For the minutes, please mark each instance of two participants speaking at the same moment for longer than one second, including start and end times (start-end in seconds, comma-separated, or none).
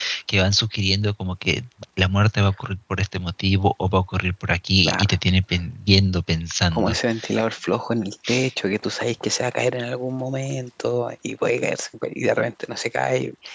none